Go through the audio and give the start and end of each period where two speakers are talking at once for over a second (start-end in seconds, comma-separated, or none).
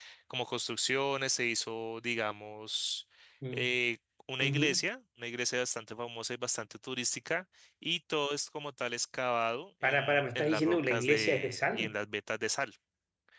9.8-11.9